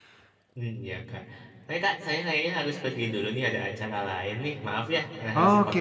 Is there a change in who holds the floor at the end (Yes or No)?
Yes